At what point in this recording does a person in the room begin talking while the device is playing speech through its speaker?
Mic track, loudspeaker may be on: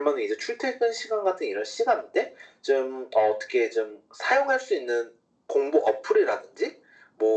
none

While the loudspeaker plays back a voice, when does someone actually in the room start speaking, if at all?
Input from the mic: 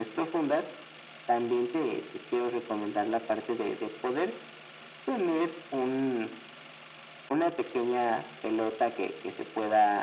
none

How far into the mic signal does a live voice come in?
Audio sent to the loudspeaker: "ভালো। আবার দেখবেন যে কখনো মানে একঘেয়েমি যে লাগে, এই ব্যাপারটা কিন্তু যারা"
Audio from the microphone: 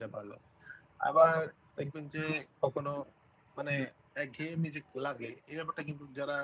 none

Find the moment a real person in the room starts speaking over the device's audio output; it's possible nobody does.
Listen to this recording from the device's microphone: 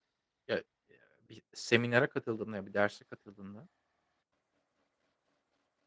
0.5 s

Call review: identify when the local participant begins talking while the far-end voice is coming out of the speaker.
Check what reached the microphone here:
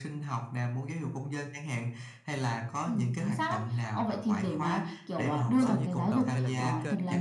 5.6 s

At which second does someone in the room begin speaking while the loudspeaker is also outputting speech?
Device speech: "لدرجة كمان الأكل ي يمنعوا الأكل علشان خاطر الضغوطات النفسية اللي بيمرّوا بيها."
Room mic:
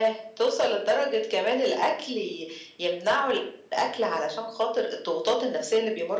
none

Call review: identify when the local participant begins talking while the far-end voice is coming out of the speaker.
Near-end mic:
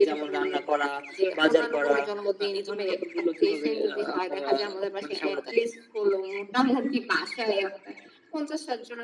none

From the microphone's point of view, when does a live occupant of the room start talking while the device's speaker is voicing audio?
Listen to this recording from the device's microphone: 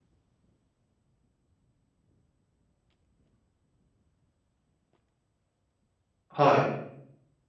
6.3 s

